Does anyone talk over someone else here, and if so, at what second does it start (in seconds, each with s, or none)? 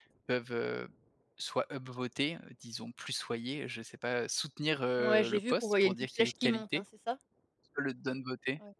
5.0 s